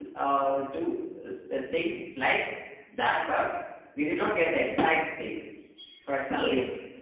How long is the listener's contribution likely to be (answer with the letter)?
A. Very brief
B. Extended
B